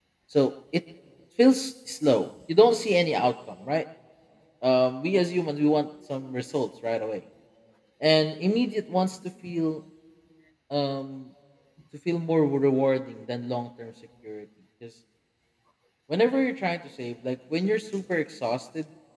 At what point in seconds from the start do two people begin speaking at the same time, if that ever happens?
none

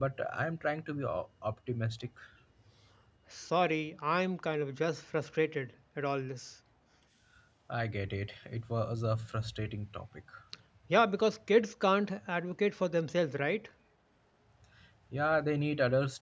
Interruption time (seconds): none

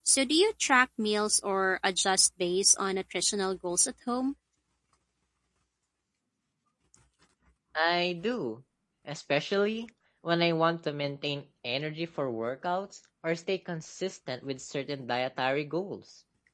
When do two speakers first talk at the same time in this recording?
none

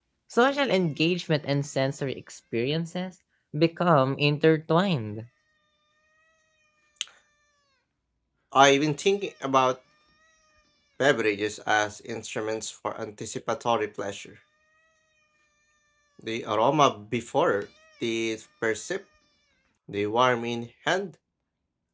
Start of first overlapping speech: none

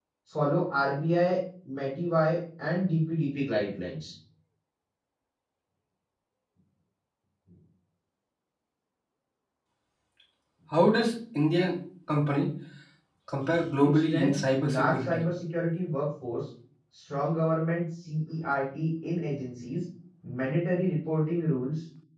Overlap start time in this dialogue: 13.8 s

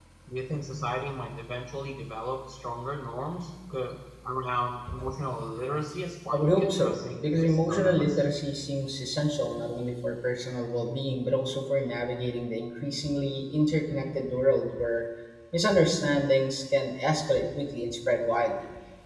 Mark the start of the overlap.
6.3 s

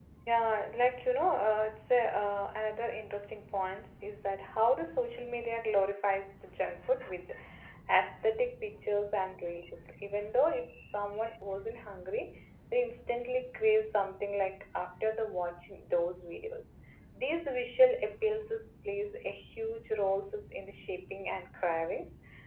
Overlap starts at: none

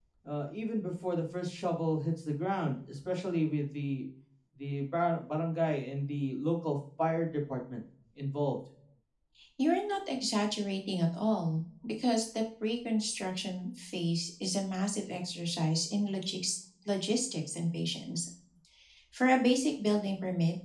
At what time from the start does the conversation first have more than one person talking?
none

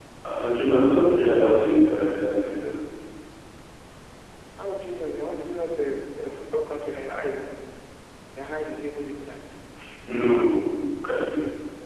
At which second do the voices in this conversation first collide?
none

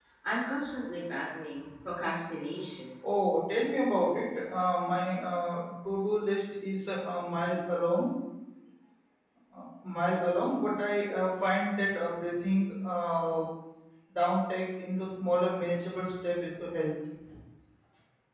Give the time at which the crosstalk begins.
none

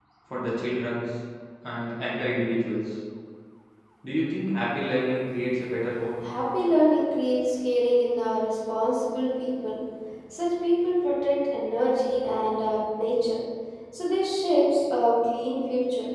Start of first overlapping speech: none

